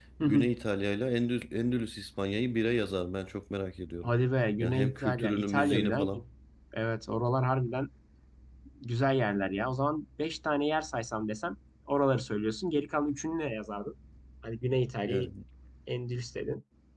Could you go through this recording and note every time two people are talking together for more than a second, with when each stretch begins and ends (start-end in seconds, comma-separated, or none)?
4.6-6.2